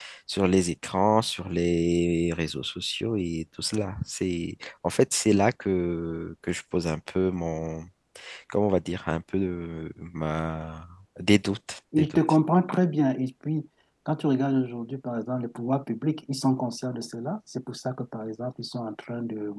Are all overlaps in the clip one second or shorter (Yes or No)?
Yes